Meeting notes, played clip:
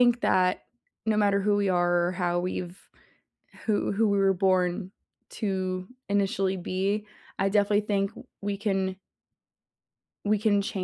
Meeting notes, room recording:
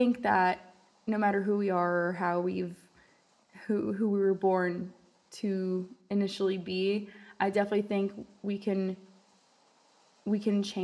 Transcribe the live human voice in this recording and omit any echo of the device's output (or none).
none